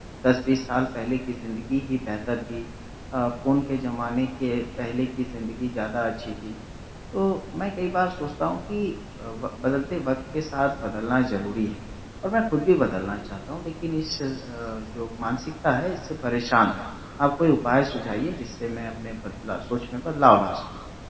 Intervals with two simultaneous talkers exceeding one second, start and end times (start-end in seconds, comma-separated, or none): none